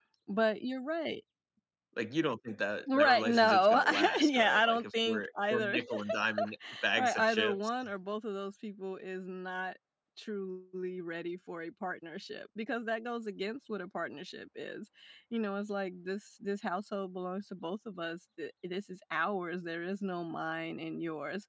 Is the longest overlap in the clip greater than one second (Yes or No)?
Yes